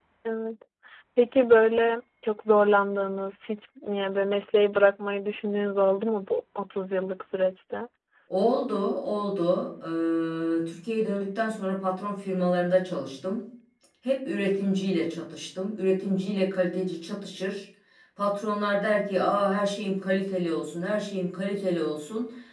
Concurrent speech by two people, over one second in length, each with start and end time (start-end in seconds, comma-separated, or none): none